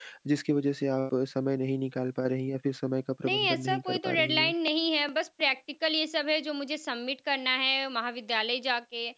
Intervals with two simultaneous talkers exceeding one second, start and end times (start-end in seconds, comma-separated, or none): 3.2-4.5